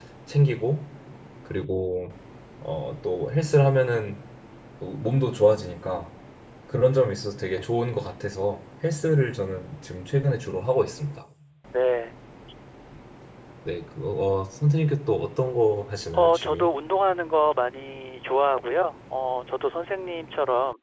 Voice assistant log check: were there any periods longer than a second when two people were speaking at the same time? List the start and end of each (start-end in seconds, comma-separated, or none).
none